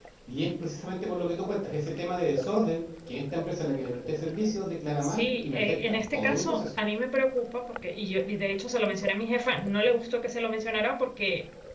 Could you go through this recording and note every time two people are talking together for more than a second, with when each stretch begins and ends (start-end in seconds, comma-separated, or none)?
5.0-6.7